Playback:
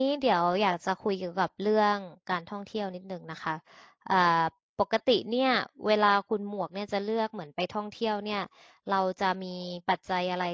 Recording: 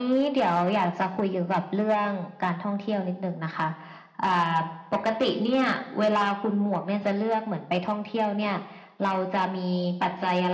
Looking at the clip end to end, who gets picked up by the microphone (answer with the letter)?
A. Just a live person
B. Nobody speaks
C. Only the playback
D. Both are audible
C